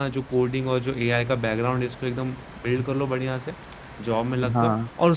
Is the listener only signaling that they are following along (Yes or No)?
Yes